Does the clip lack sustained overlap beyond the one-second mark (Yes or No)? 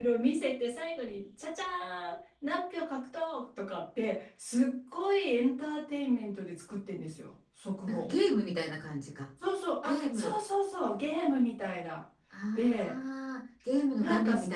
Yes